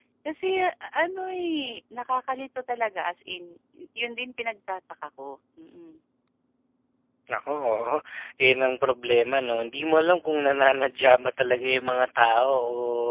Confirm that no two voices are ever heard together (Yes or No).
Yes